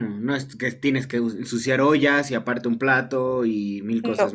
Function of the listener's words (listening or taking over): taking over